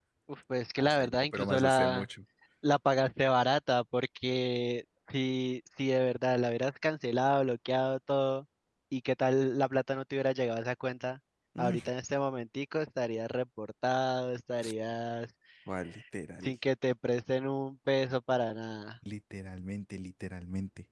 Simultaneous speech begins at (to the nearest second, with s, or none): 1 s